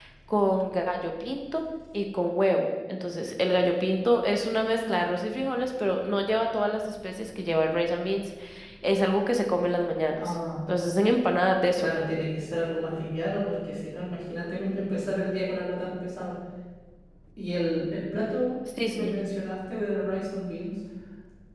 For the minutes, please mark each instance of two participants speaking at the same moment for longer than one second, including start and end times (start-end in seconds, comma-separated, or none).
none